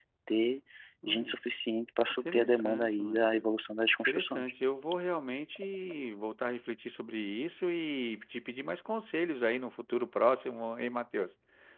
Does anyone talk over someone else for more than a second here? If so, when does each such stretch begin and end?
2.2-3.5

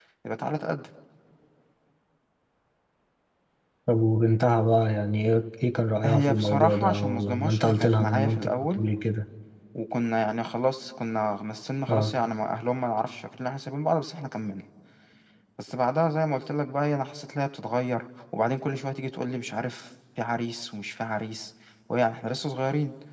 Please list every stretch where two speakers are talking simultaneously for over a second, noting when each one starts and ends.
6.0-8.8

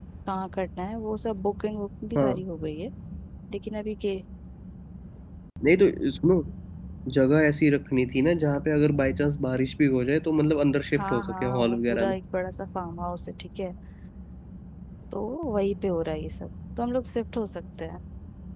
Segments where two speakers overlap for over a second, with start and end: 10.9-12.2

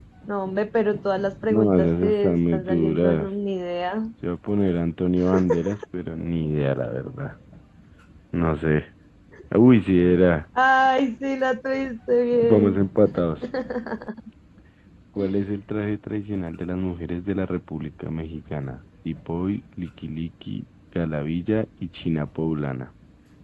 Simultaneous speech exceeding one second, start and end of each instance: 1.5-3.3

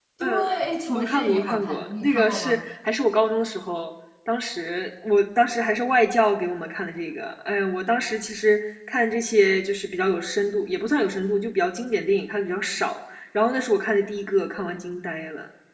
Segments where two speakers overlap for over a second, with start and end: 1.0-2.6

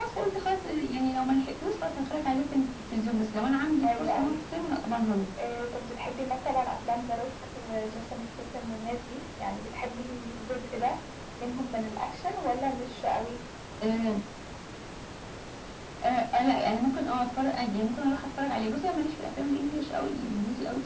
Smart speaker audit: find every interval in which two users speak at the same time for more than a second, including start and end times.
none

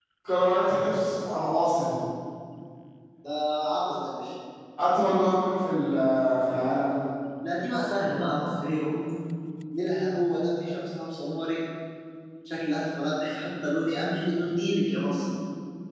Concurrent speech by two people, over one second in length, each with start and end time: none

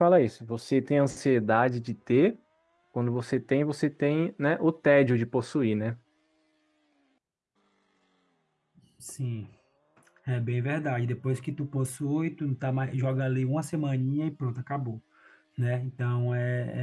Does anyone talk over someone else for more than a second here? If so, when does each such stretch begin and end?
none

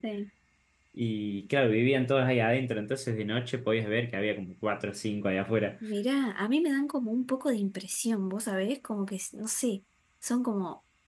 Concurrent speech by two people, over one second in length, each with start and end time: none

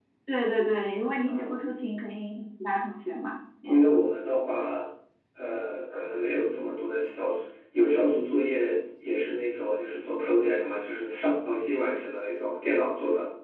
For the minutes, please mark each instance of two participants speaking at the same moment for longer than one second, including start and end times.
none

